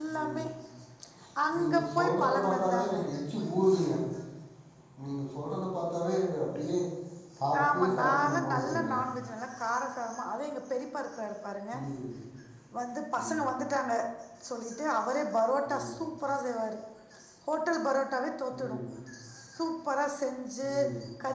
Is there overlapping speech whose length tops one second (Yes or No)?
Yes